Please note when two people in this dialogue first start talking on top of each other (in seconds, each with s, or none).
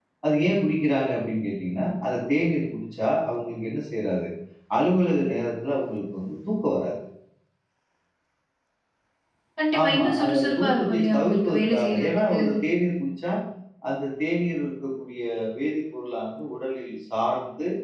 9.8 s